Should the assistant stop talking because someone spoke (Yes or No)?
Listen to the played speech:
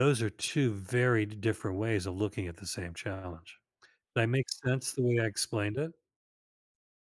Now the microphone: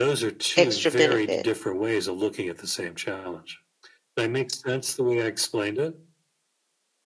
Yes